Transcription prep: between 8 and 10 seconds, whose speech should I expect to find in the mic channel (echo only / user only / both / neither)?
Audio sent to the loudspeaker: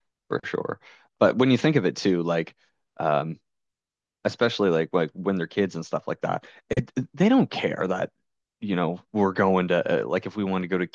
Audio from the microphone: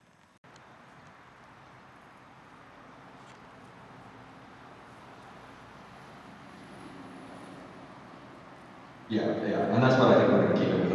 user only